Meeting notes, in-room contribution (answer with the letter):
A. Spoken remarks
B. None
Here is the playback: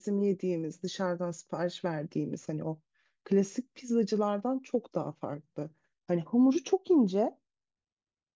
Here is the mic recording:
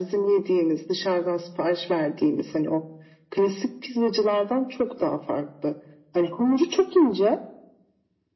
B